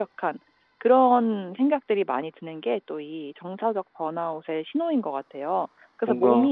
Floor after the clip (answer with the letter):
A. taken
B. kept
B